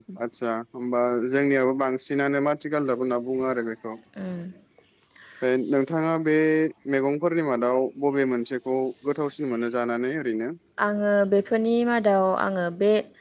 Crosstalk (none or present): none